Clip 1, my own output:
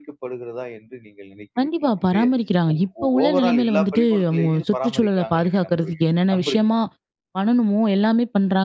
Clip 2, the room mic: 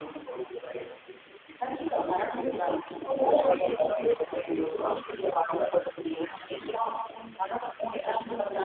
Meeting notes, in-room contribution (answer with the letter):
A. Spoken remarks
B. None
B